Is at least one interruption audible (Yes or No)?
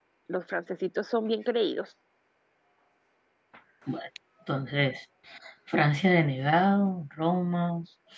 No